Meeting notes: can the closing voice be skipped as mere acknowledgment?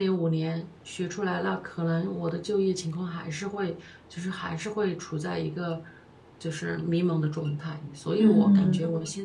Yes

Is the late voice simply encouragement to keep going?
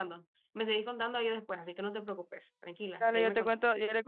No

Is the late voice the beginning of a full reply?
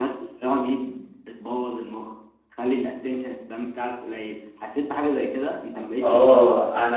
Yes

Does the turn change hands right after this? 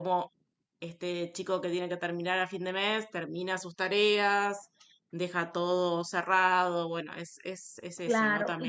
Yes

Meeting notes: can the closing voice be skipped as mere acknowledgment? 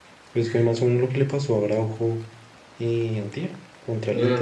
No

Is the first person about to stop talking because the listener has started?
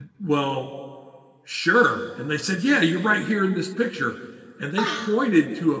No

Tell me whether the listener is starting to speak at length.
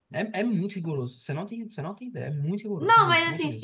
Yes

